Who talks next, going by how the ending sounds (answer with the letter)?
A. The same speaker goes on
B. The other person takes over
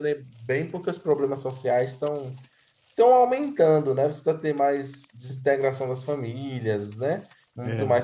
A